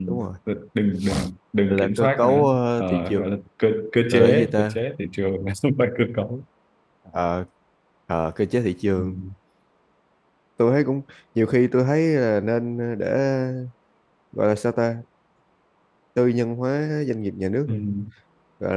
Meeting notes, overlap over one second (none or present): present